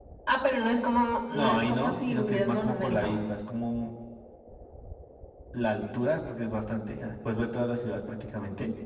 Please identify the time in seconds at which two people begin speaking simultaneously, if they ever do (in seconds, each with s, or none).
1.3 s